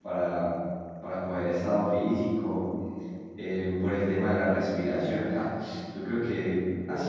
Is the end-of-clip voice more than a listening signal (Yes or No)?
No